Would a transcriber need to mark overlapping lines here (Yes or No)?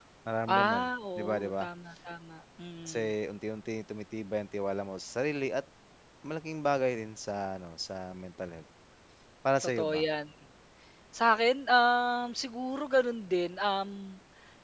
Yes